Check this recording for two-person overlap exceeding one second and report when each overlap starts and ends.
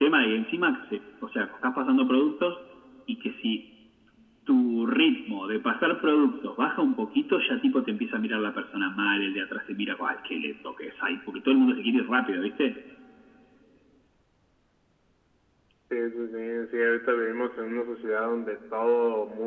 none

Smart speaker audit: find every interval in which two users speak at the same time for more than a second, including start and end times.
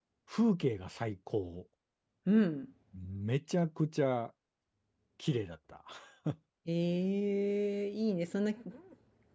none

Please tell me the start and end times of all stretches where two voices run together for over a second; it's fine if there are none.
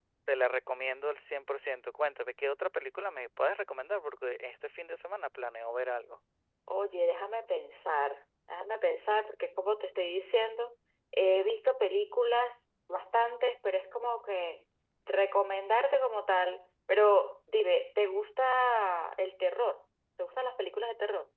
none

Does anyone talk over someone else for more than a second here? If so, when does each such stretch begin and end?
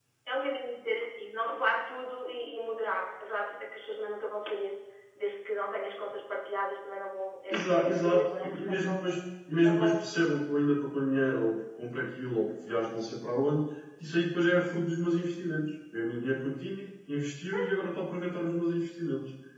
7.5-8.9

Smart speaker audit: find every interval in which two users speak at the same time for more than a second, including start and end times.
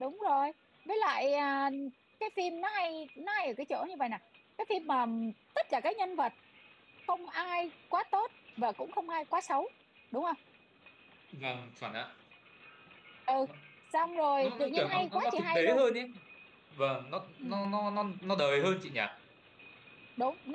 14.4-15.8

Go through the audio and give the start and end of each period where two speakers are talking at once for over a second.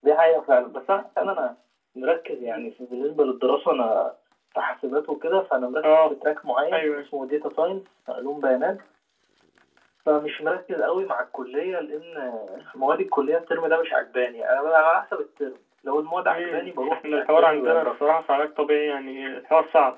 16.3-18.2

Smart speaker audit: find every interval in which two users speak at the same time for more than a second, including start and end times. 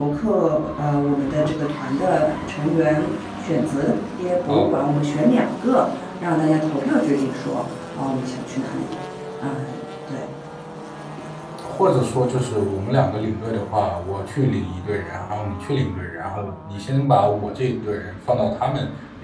none

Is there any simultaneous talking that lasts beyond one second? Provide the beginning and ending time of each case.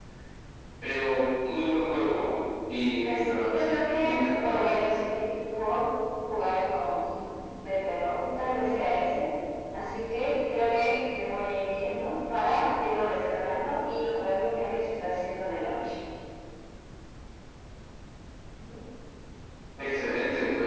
3.0-4.6

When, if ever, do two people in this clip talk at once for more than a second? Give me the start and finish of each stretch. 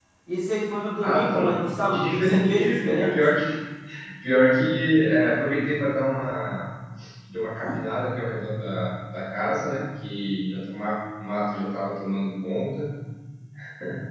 1.0-3.1

